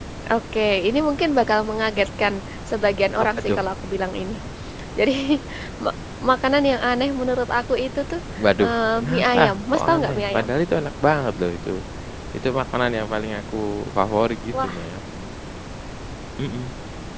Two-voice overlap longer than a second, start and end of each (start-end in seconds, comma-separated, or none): 8.6-10.5